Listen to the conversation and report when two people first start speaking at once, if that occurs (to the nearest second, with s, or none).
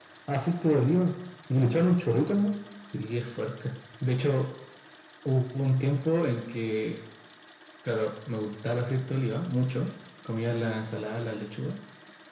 none